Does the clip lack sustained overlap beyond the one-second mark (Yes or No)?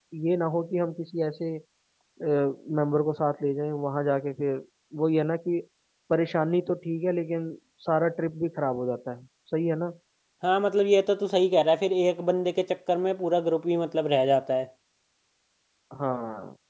Yes